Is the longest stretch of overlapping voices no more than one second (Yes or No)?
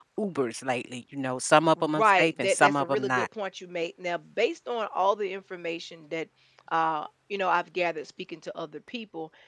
No